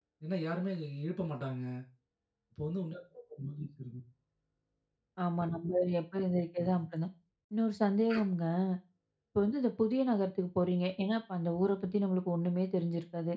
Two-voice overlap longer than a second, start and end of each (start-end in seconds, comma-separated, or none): none